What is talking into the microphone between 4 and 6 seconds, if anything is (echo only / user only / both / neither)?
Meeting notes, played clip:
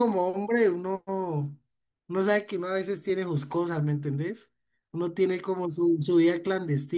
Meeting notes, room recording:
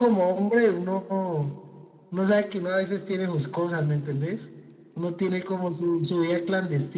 echo only